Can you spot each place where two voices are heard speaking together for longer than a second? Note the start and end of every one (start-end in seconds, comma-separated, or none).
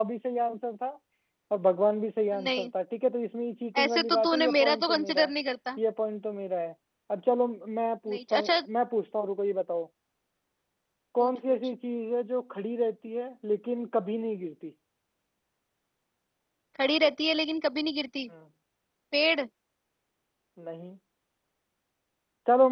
3.8-5.3